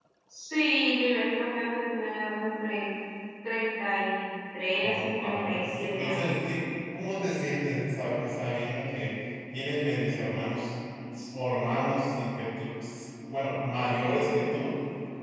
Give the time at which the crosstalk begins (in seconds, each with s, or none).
4.8 s